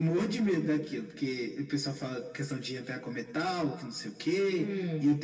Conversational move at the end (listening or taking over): listening